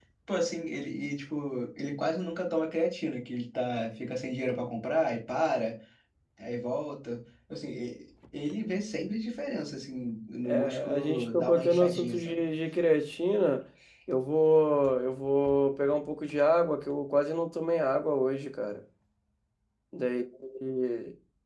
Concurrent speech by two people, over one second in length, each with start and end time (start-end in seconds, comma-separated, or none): 10.4-12.4